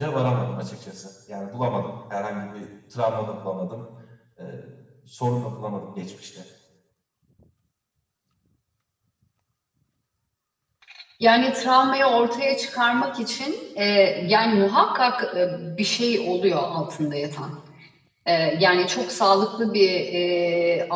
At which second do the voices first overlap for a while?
none

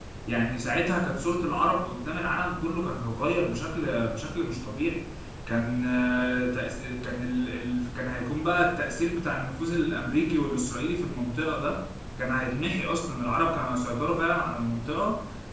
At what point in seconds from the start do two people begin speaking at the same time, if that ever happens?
none

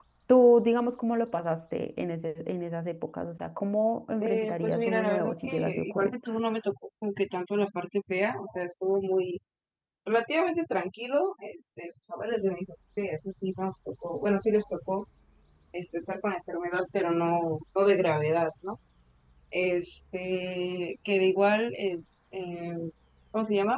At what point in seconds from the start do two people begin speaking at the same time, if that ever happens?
4.2 s

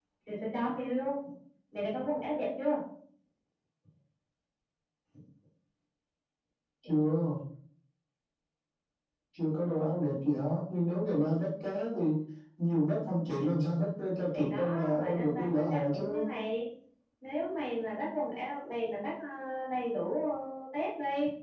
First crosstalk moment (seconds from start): 14.3 s

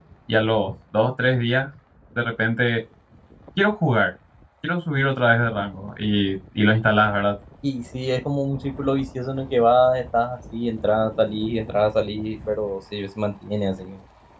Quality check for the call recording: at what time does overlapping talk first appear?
none

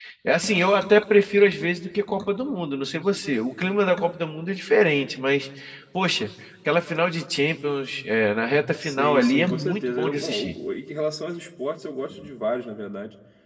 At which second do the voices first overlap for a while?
8.8 s

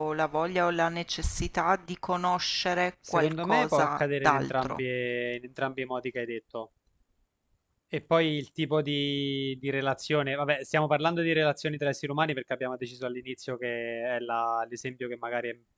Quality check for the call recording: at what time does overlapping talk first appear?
3.0 s

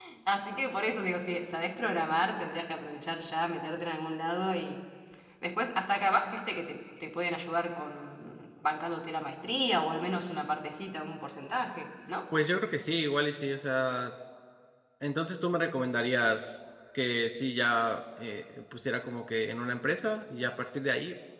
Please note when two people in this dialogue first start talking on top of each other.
none

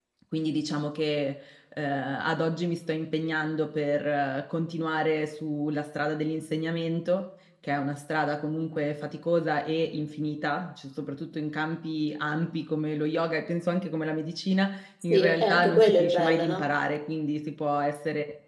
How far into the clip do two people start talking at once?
15.1 s

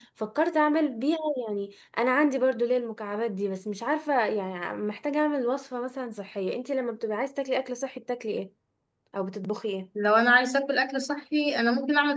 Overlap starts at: none

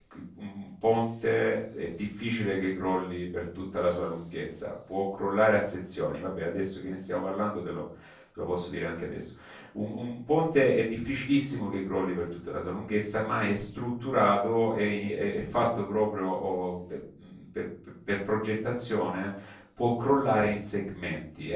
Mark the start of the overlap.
none

